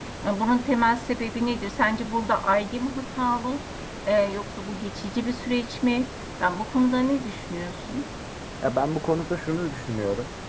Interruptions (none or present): none